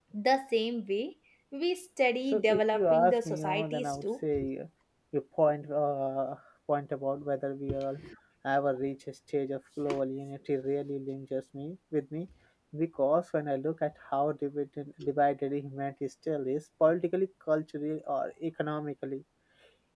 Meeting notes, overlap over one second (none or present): present